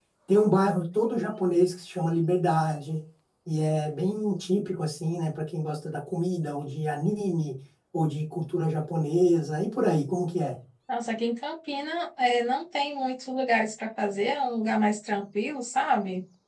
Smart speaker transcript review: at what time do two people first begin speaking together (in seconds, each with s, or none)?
none